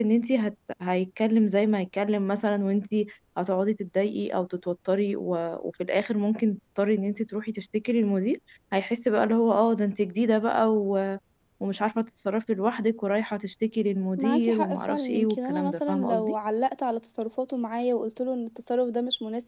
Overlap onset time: 14 s

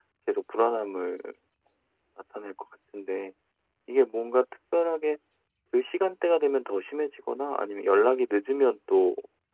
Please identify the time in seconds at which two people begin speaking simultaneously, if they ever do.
none

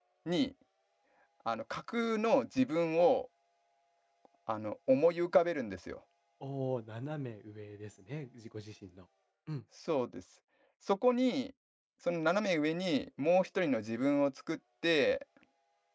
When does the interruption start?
none

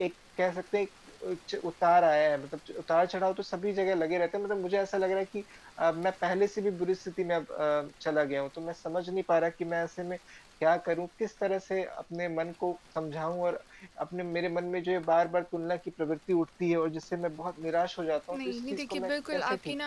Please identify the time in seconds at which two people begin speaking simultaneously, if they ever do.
18 s

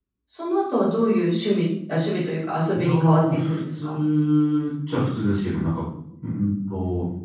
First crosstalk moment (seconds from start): 3 s

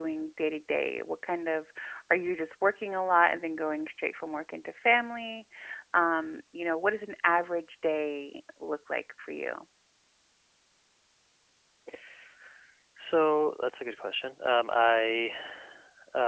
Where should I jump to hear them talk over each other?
none

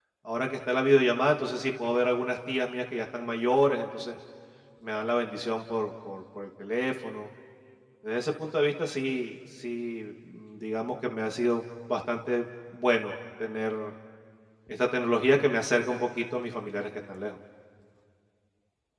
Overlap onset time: none

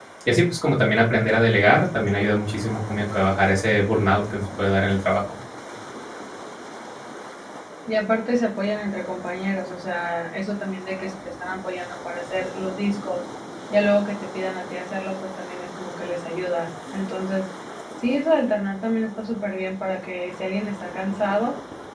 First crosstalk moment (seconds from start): none

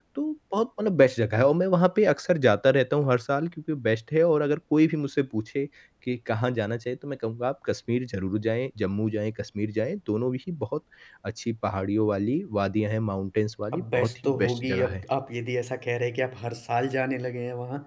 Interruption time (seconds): 14 s

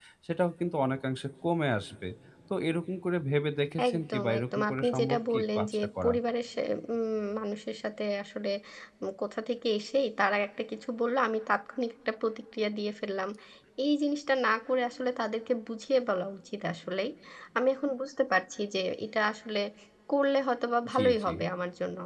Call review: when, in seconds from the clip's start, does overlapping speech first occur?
4 s

